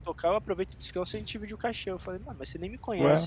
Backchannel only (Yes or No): Yes